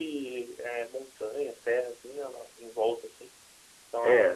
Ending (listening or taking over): taking over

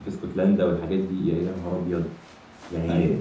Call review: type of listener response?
listening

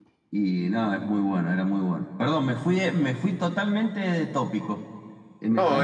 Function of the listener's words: taking over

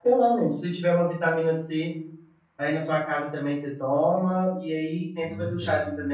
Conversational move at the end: listening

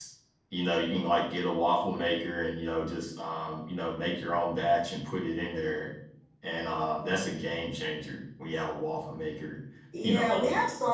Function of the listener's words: taking over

